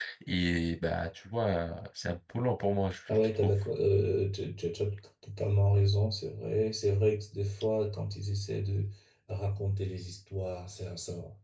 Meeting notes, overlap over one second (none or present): none